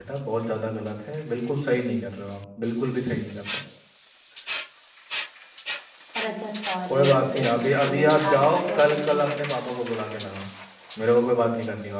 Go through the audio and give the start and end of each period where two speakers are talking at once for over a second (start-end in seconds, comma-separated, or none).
6.9-9.3